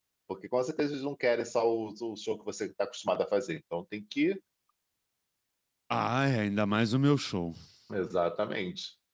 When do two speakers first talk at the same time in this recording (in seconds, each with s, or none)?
none